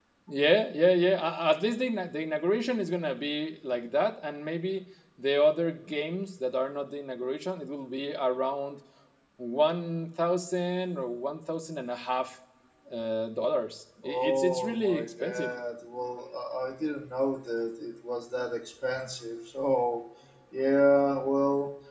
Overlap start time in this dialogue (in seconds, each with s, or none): 14.0 s